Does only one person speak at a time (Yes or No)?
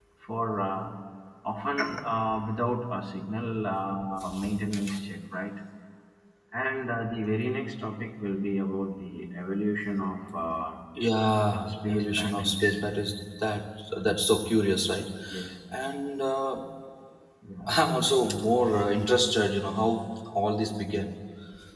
No